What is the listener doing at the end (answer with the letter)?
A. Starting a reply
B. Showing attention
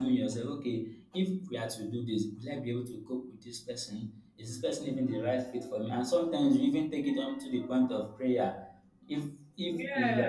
B